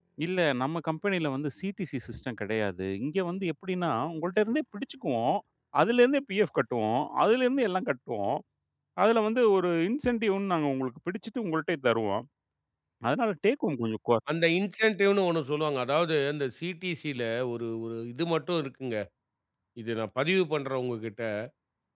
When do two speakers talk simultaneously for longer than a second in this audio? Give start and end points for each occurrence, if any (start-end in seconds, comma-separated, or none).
none